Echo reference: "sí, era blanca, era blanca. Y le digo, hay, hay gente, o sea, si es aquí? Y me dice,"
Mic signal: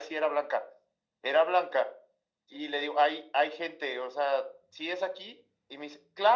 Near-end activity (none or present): none